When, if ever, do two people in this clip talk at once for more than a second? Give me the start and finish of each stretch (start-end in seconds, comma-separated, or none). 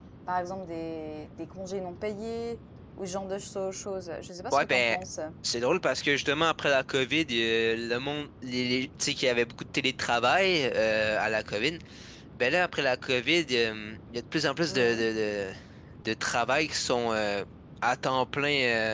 none